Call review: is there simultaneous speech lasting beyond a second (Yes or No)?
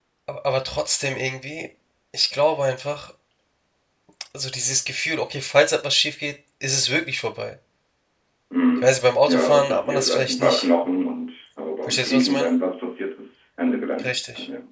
Yes